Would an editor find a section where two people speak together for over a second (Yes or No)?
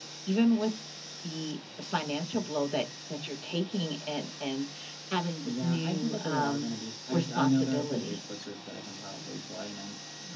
Yes